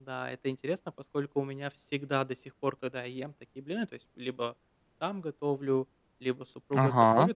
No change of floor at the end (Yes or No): Yes